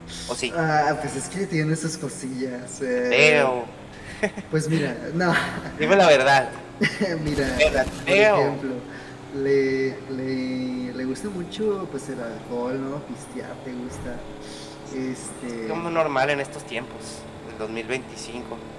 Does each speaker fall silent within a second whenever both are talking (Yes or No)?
No